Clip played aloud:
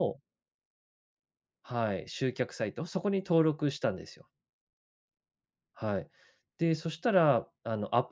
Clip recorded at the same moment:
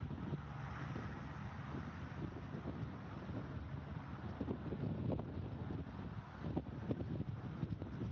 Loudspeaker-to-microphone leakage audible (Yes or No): No